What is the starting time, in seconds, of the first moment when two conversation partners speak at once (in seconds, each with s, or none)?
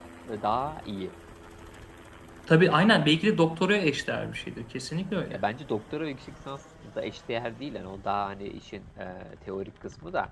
none